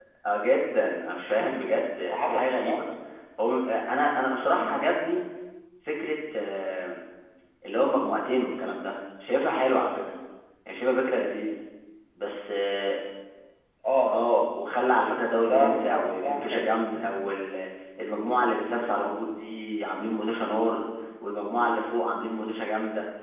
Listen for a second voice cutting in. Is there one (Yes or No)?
Yes